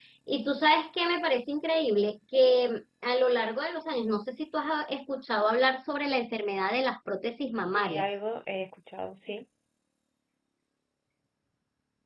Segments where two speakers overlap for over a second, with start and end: none

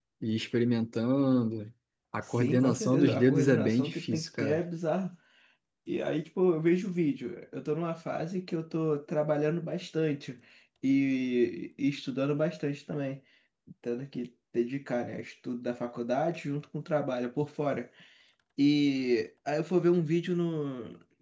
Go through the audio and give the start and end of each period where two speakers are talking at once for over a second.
2.3-4.6

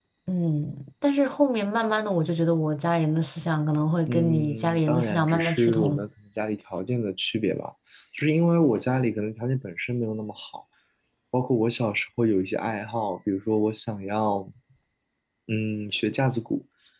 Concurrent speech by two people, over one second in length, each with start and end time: 4.1-6.0

